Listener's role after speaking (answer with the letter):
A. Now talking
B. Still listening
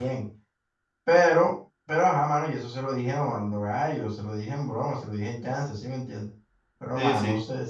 B